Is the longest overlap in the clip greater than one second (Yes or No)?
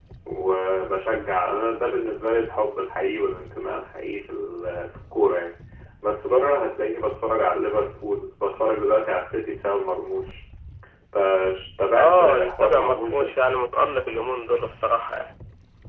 Yes